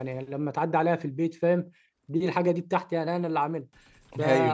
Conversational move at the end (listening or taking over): listening